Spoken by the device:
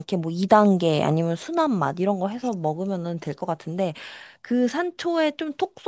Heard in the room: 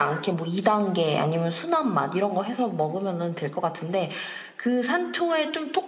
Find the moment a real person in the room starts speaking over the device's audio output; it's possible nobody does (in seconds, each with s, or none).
none